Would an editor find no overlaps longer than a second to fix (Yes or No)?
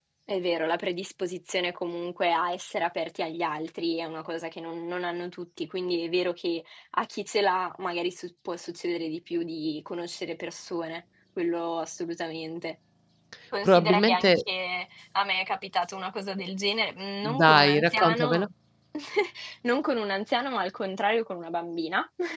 No